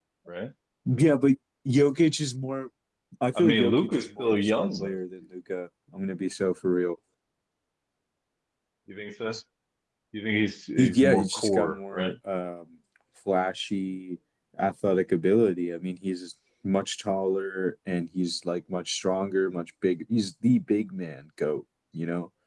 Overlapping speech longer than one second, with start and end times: 3.4-5.0, 10.8-12.1

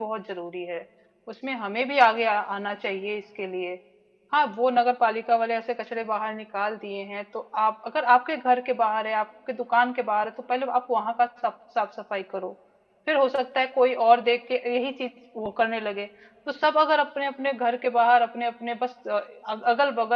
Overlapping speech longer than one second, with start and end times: none

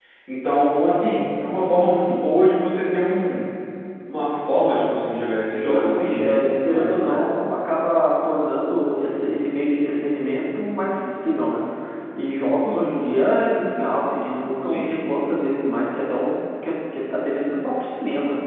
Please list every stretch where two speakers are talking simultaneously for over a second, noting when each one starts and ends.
5.6-7.2

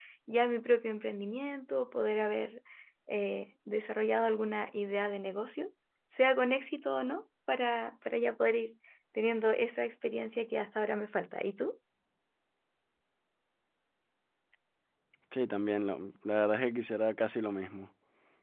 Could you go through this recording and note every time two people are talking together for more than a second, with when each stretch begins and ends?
none

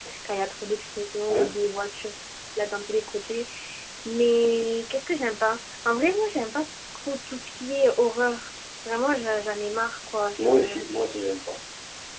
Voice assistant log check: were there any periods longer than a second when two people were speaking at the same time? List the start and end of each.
none

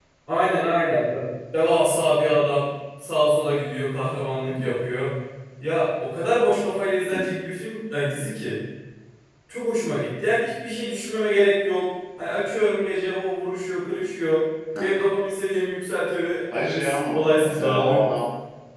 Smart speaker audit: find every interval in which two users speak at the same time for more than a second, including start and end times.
16.5-18.2

